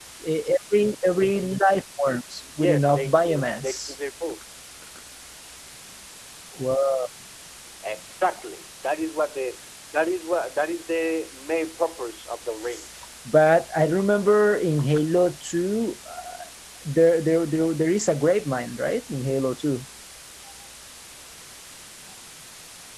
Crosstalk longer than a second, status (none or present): present